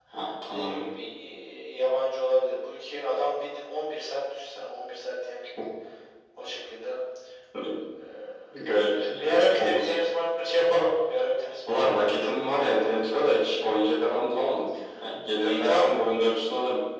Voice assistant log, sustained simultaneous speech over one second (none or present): present